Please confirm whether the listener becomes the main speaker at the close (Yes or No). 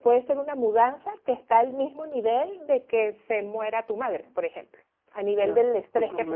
Yes